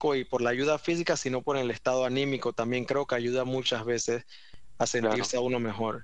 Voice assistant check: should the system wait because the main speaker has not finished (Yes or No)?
Yes